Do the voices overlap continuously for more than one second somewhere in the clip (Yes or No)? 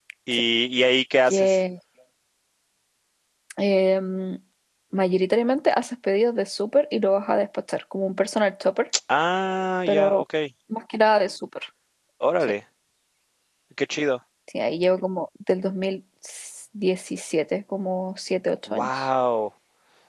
No